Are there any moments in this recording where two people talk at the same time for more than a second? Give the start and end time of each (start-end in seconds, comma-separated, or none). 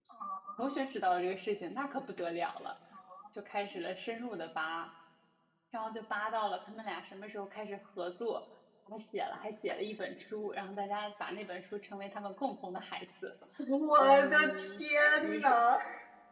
14.0-15.6